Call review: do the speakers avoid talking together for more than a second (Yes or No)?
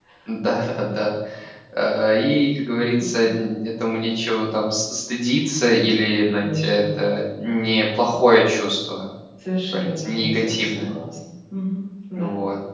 No